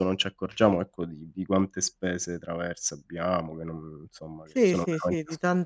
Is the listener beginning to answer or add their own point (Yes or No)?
Yes